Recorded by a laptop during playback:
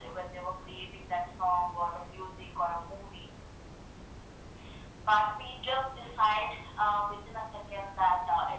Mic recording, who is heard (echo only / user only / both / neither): echo only